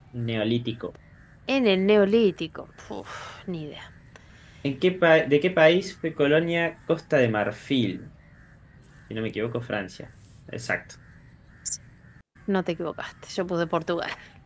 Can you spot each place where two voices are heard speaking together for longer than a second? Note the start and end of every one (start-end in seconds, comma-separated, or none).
none